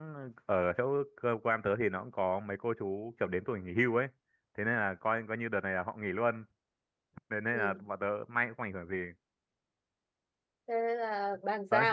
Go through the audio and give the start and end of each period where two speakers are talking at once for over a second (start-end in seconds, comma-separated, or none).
none